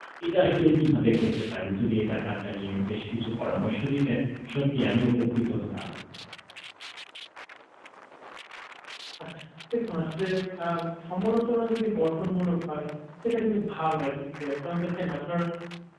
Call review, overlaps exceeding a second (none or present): none